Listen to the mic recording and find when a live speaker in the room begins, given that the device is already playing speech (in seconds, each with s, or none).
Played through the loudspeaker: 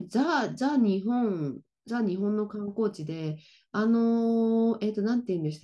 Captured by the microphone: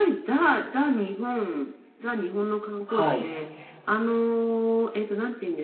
2.9 s